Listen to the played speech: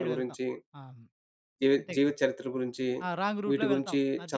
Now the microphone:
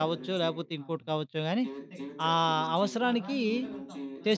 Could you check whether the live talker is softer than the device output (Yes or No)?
No